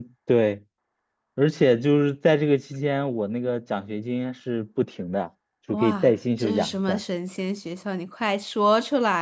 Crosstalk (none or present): present